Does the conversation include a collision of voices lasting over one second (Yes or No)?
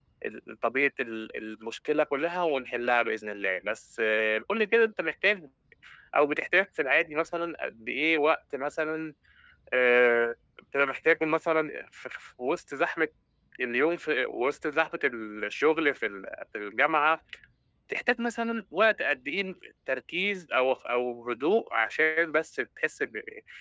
No